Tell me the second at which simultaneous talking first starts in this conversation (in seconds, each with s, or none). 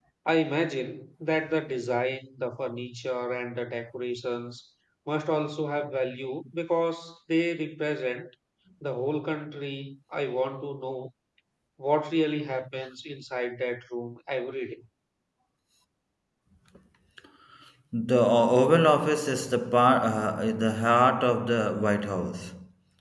none